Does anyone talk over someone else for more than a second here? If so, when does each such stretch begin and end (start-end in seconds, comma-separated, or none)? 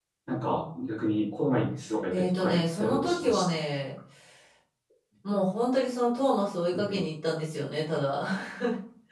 2.1-3.6